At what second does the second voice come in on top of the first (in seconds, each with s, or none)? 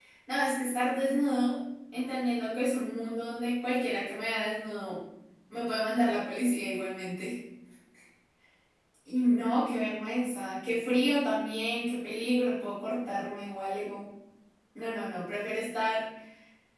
none